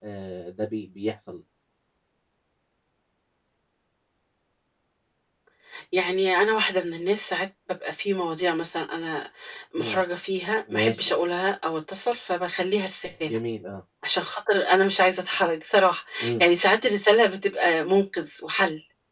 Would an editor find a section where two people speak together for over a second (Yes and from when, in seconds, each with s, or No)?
No